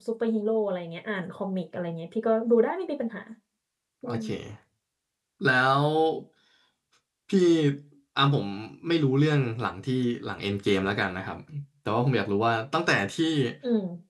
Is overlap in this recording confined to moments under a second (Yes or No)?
Yes